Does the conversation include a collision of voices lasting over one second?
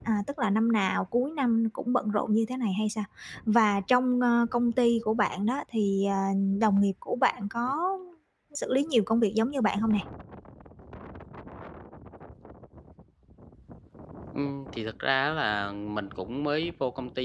No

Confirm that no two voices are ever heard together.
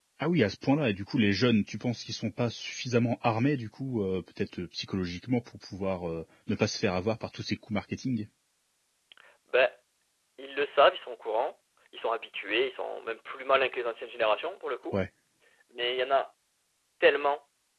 Yes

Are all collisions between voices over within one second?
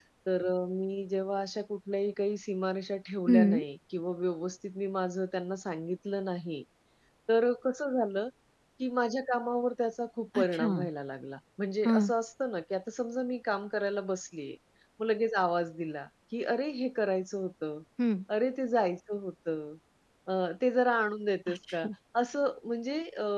Yes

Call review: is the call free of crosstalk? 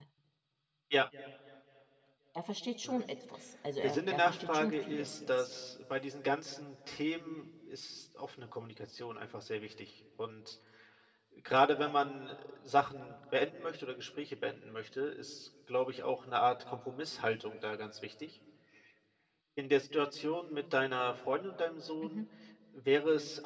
No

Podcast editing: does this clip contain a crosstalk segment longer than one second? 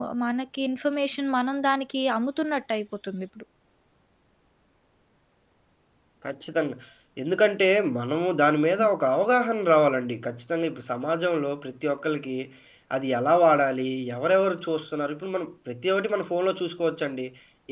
No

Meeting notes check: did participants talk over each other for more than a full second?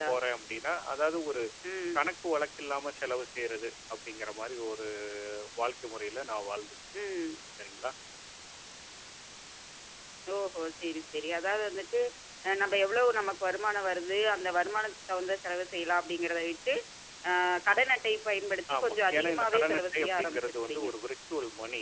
Yes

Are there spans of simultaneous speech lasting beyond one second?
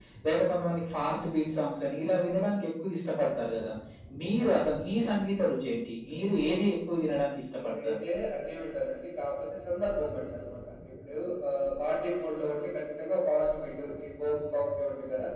No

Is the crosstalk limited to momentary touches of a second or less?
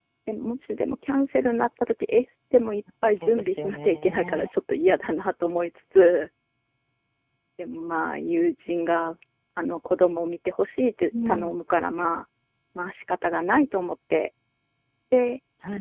No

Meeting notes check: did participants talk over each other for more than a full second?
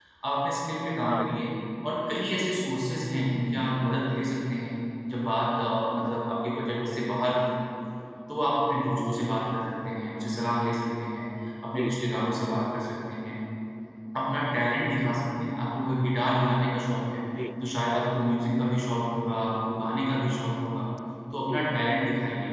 No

